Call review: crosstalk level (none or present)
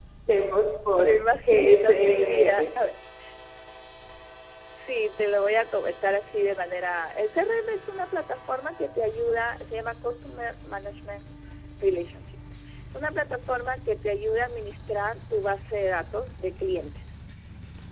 present